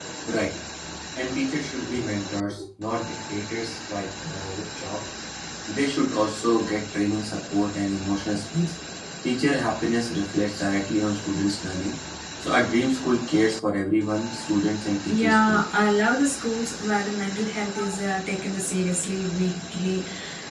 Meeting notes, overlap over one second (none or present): none